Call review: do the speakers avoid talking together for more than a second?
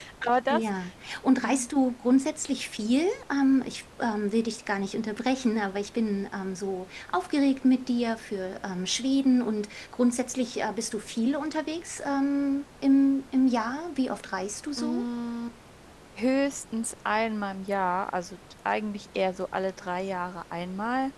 Yes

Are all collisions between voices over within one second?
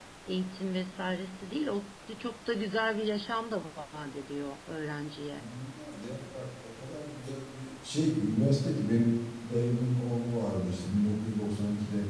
Yes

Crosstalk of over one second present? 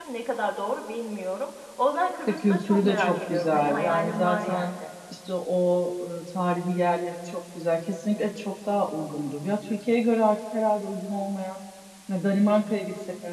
Yes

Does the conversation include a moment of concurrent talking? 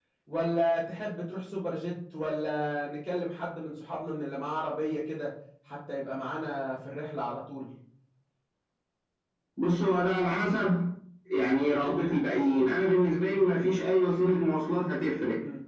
No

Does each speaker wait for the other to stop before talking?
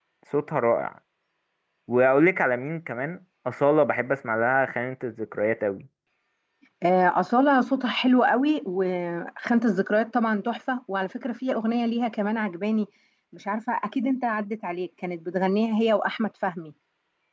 Yes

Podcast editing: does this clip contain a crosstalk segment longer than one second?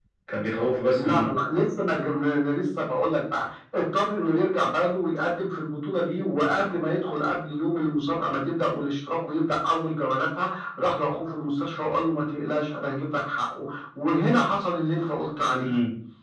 No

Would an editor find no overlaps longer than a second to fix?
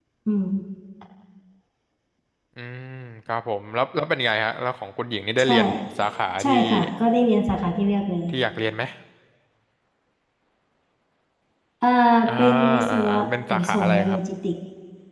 No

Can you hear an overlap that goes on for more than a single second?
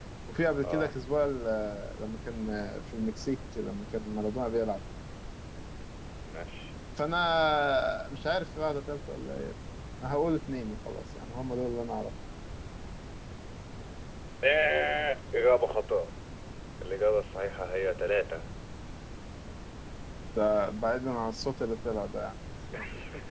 No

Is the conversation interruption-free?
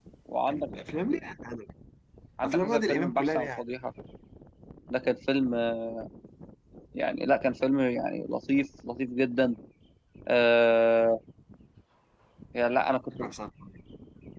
No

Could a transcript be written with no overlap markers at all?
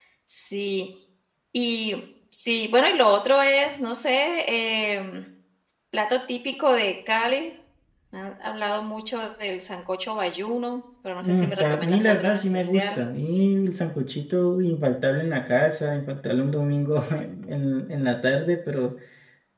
No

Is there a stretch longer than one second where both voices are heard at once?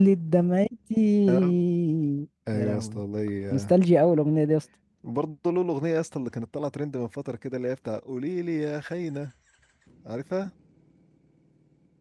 No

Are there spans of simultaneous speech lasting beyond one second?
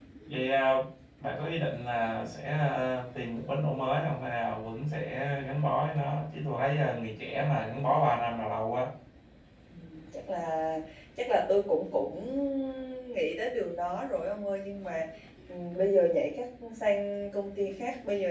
No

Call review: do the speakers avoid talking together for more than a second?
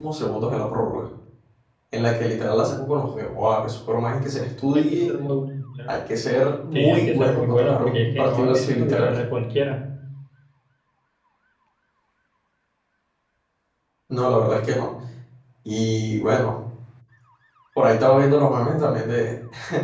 No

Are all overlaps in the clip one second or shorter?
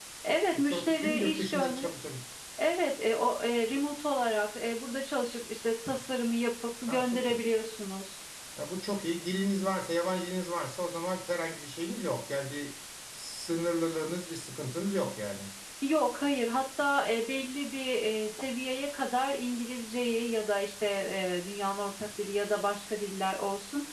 No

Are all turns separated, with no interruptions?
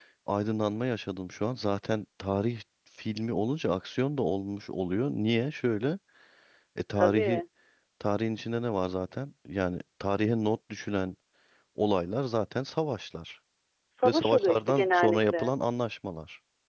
No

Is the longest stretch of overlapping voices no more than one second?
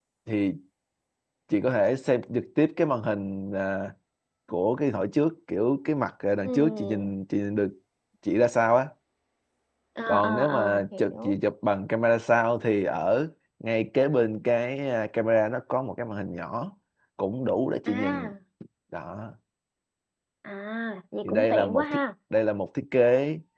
No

